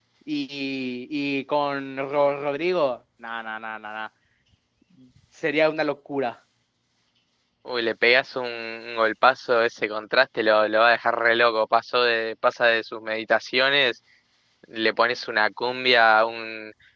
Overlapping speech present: No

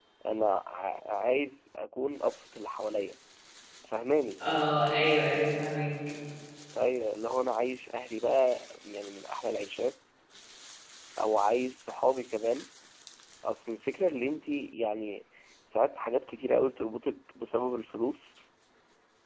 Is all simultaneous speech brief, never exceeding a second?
Yes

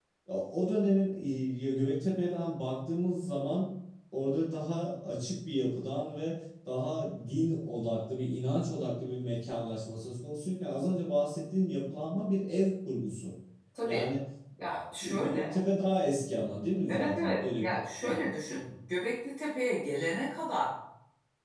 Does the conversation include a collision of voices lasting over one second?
Yes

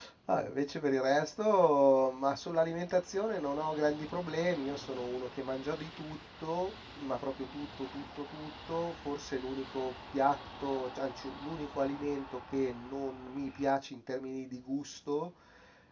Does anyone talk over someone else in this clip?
No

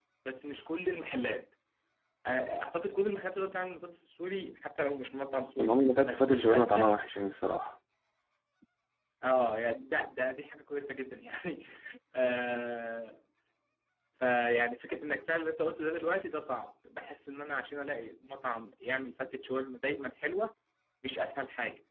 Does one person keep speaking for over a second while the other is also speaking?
Yes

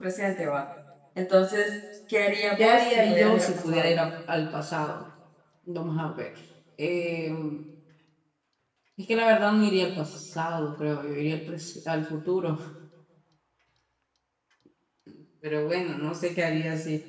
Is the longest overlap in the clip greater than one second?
Yes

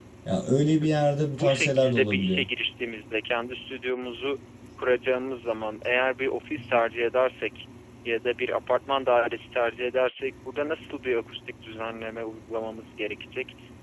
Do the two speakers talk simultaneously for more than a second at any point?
Yes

